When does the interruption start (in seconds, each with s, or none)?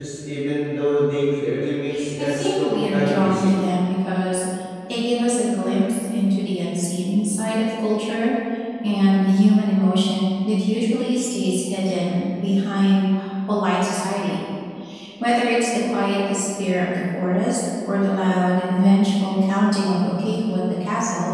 2.2 s